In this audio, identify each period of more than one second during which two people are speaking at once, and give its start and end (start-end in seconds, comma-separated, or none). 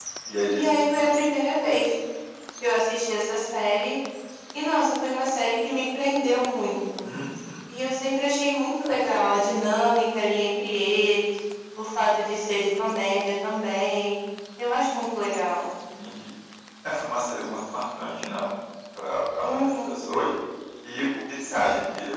none